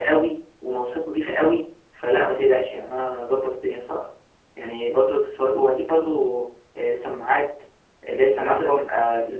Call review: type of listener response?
listening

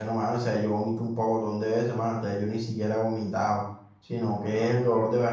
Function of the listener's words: listening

